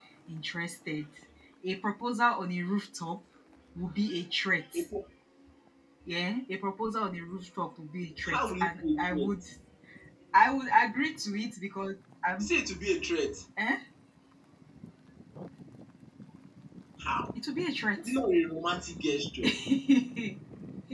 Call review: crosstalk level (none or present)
present